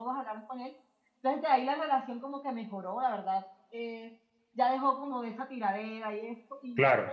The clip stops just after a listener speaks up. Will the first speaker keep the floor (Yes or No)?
Yes